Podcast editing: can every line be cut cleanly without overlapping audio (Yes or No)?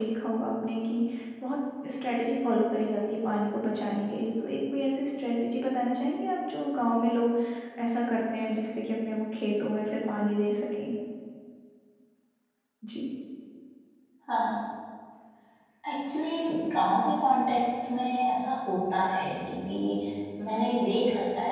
Yes